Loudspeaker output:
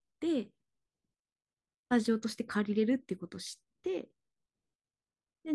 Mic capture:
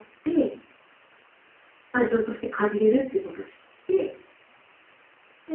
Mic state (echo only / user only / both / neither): echo only